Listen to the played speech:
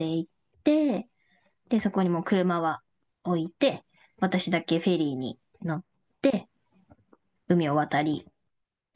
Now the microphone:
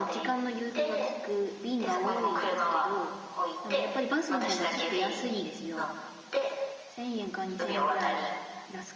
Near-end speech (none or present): present